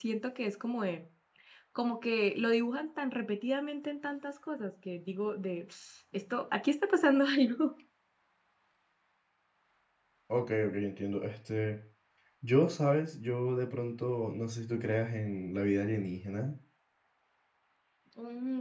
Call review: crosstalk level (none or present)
none